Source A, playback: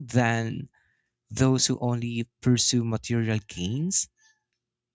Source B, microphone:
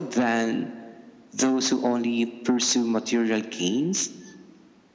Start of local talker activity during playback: none

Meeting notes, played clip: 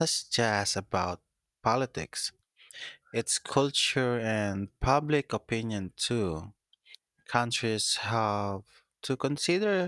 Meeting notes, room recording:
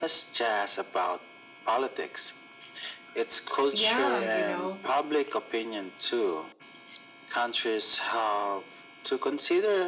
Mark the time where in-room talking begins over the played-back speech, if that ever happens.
3.7 s

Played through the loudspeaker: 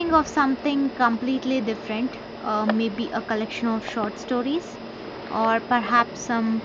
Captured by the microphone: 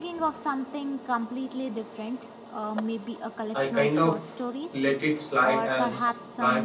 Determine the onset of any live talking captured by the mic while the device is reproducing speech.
3.5 s

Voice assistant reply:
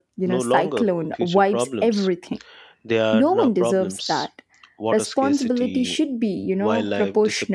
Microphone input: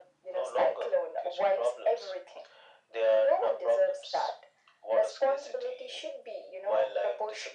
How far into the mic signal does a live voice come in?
none

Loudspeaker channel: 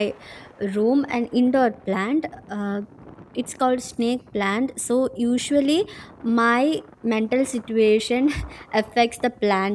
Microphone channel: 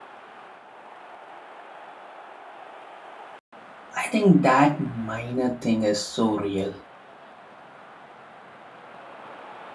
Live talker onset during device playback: 4.0 s

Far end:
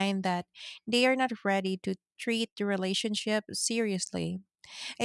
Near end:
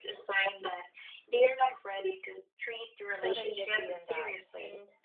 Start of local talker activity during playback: 3.2 s

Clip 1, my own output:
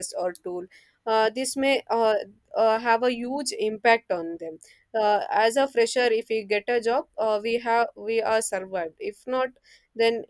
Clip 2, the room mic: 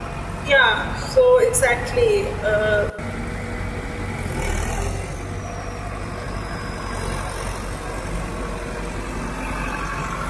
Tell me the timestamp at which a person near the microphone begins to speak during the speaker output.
0.4 s

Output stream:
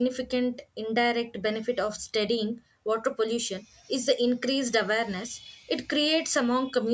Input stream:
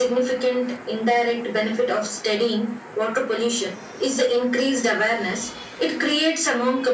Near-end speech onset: none

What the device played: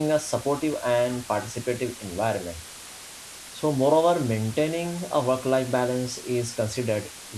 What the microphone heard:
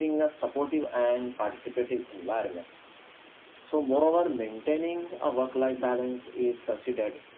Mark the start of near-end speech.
none

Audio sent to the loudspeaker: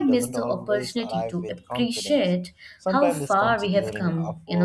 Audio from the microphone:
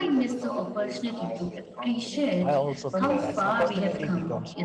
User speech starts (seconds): 2.4 s

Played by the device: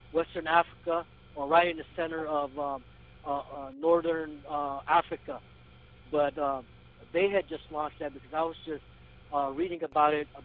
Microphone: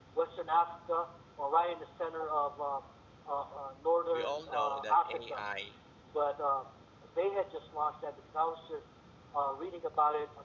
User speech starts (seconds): 4.1 s

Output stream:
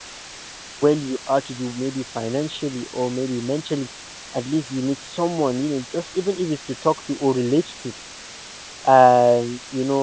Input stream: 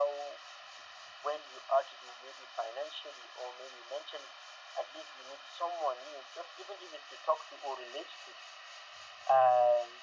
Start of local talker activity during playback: none

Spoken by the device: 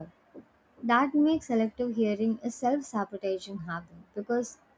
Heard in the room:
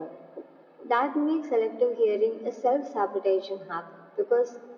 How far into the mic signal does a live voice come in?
none

